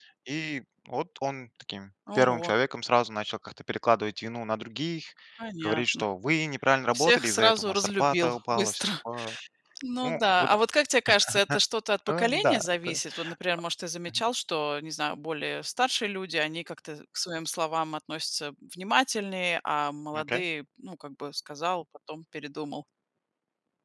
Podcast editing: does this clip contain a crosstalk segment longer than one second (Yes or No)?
Yes